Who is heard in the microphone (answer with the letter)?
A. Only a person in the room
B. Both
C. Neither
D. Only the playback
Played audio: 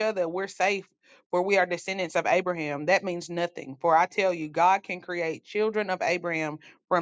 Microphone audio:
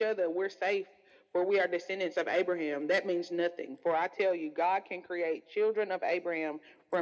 D